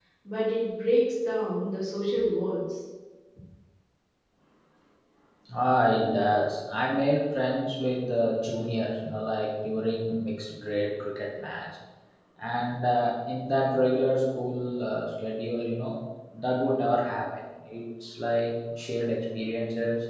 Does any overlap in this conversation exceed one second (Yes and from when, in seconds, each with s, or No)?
No